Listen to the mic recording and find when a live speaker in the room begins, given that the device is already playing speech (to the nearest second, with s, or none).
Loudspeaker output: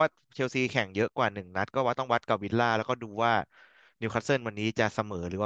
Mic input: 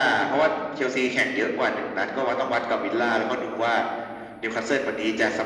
none